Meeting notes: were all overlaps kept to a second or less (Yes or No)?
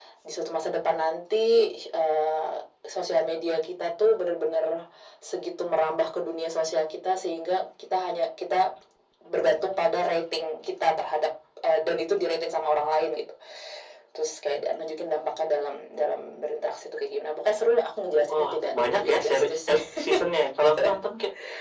No